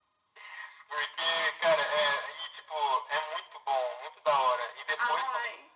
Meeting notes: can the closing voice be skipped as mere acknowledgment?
Yes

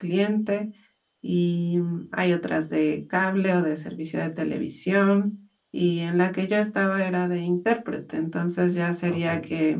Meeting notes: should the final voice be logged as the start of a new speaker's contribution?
No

